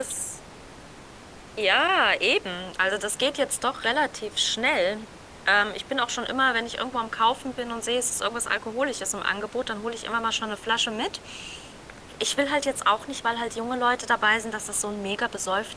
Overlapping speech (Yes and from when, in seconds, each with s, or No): No